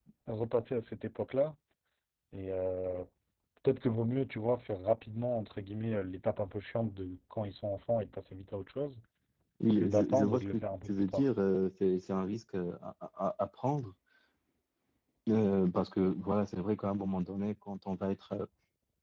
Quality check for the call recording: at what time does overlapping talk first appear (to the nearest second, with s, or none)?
10 s